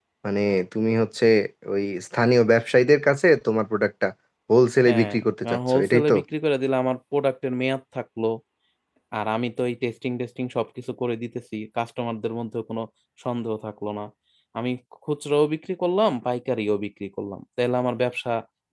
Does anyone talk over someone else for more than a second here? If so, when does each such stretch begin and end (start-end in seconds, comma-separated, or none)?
4.9-6.1